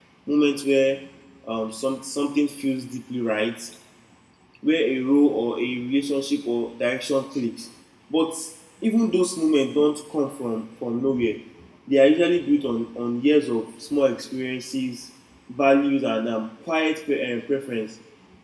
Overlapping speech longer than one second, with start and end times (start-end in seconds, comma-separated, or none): none